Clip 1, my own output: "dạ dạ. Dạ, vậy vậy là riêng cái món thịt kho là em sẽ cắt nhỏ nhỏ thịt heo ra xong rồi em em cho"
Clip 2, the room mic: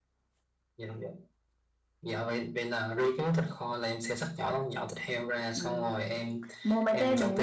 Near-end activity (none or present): present